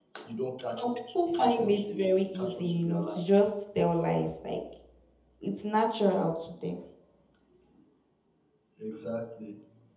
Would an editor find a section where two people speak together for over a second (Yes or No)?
Yes